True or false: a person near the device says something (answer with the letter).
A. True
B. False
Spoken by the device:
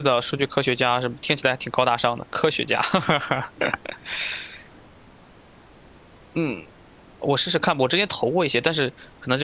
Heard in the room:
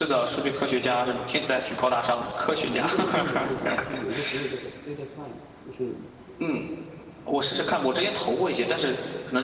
A